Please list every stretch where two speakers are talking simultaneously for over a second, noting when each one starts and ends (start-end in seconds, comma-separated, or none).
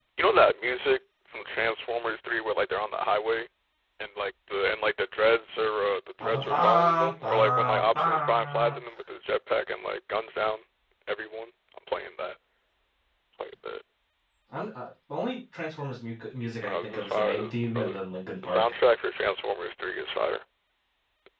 6.2-8.7, 16.6-18.0